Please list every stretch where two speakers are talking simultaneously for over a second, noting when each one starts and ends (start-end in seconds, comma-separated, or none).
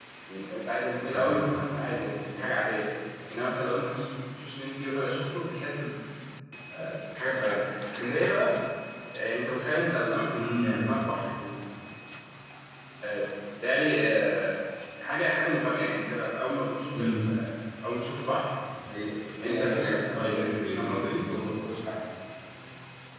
19.4-21.2